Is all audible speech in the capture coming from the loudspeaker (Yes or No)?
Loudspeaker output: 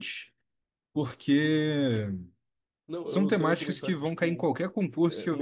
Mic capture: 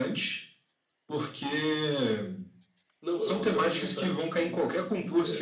Yes